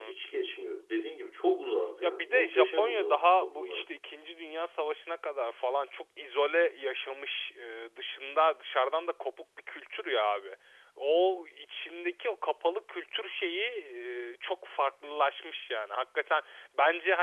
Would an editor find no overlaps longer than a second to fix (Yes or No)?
No